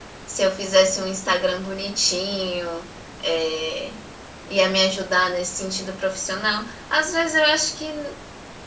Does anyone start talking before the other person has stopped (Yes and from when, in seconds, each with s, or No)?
No